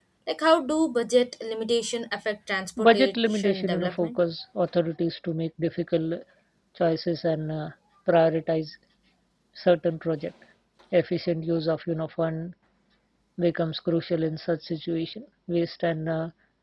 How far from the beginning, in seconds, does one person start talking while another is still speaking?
3 s

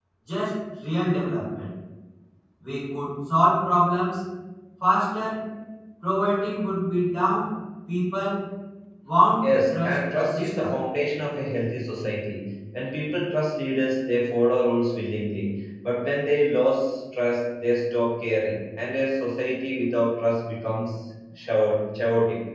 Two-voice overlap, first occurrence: 9 s

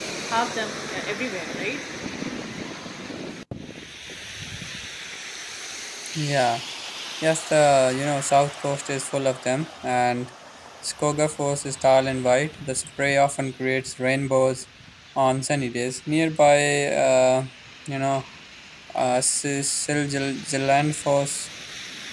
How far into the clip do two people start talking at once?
none

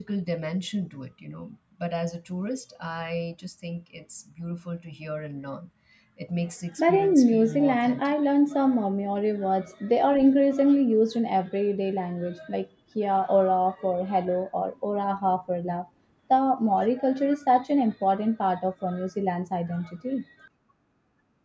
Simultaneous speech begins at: 7 s

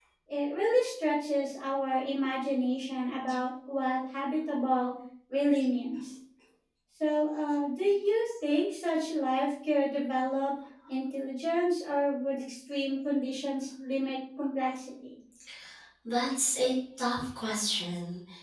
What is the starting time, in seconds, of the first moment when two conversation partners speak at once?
none

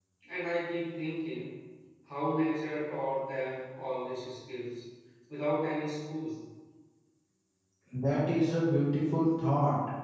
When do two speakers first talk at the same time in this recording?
none

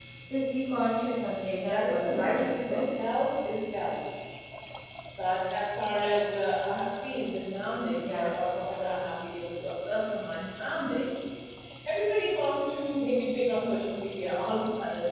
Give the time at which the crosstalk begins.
2 s

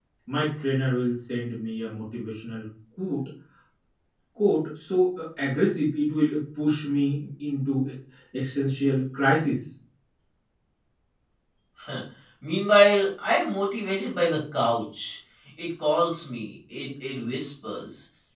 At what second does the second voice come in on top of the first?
none

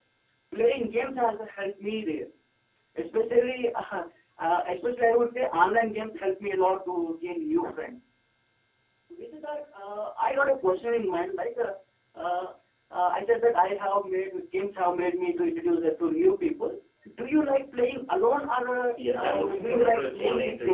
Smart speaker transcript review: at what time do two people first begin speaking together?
19 s

